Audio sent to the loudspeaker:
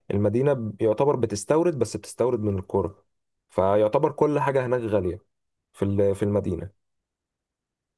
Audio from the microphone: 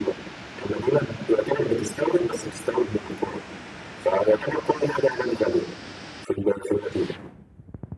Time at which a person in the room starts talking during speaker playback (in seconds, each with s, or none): none